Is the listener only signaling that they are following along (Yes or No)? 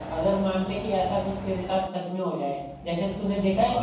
Yes